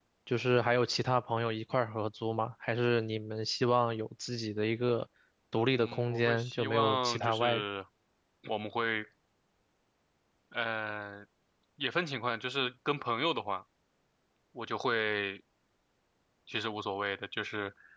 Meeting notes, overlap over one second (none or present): present